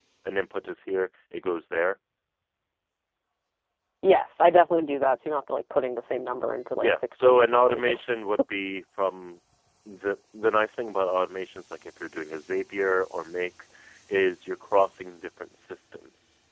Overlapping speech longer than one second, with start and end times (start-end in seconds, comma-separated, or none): 6.8-8.1